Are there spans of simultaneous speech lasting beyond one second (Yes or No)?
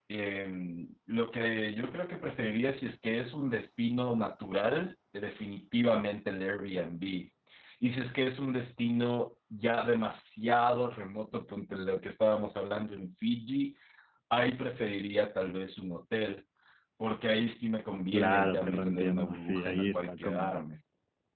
Yes